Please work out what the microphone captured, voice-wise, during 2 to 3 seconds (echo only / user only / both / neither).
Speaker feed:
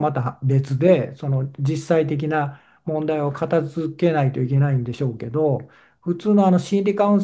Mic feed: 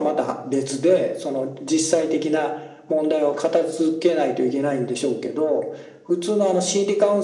echo only